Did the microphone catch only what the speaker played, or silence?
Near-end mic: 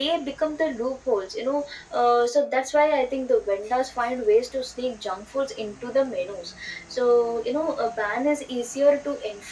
Yes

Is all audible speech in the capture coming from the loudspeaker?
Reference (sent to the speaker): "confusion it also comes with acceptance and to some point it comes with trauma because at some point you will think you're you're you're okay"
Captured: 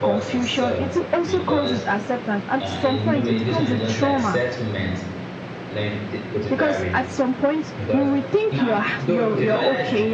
No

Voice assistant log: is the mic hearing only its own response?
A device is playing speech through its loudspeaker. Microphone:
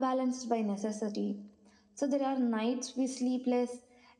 Yes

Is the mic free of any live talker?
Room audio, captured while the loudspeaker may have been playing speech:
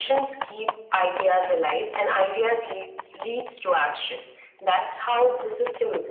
Yes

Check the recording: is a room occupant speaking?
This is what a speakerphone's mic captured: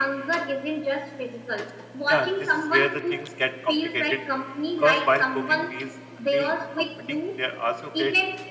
Yes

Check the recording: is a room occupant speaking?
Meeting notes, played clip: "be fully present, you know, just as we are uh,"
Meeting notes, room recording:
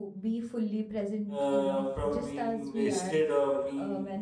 Yes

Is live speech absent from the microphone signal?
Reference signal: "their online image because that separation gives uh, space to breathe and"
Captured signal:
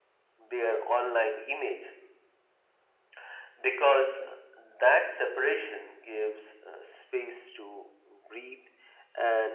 Yes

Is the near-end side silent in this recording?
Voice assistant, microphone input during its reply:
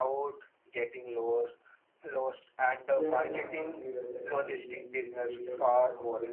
No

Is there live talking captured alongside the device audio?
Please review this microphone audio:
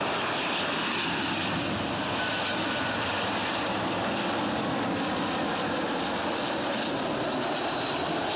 No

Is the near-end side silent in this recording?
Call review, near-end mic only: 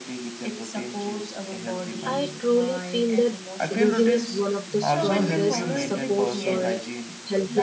No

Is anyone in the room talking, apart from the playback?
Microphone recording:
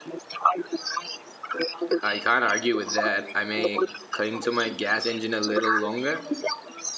Yes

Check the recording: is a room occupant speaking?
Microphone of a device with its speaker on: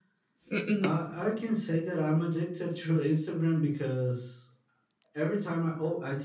Yes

